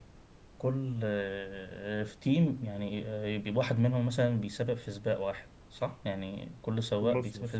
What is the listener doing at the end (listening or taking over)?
taking over